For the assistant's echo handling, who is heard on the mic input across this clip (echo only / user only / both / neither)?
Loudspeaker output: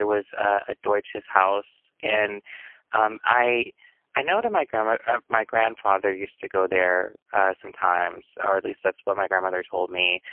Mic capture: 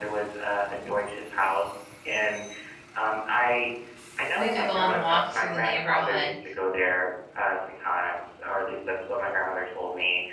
both